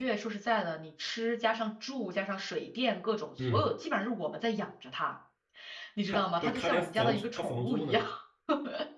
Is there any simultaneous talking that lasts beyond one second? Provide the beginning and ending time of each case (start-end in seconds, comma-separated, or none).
6.1-8.0